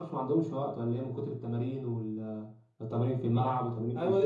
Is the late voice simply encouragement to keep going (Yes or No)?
No